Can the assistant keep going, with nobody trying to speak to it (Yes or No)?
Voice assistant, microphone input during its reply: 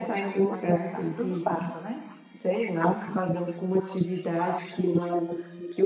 Yes